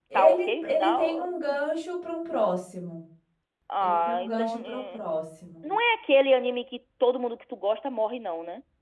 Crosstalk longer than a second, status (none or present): present